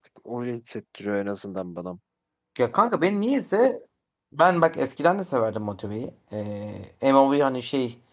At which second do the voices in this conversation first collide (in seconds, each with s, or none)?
none